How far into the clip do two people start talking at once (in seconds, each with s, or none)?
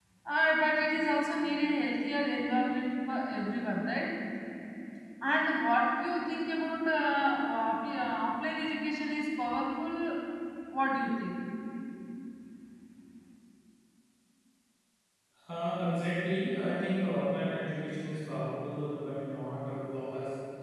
none